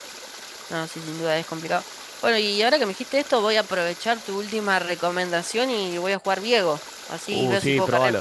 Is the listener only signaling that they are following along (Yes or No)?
No